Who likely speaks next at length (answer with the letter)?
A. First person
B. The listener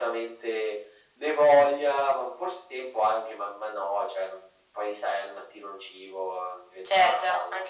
B